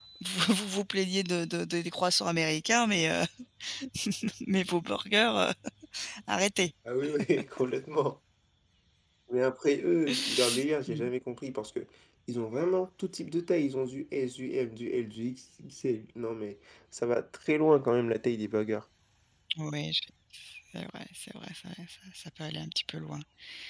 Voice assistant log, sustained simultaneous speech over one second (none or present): none